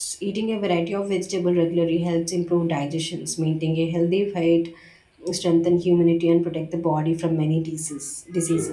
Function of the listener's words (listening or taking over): taking over